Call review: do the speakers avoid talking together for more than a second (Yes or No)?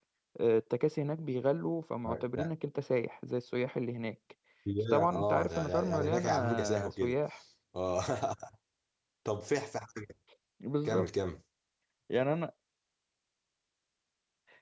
No